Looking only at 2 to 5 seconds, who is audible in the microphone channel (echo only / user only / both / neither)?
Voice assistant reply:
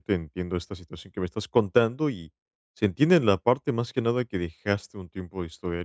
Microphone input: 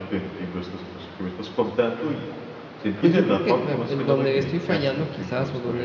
both